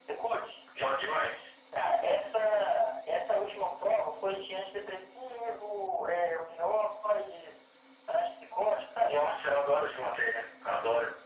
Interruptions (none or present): none